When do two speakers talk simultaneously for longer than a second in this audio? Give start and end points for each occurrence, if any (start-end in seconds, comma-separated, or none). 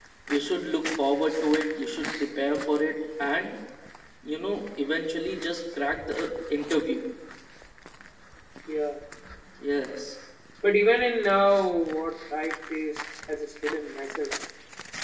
none